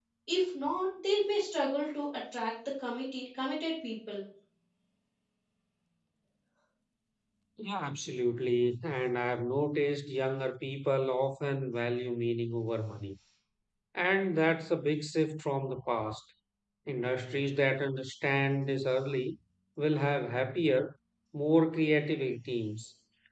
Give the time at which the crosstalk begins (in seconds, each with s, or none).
none